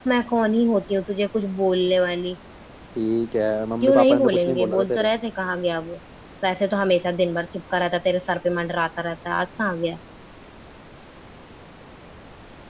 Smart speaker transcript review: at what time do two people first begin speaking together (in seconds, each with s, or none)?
3.8 s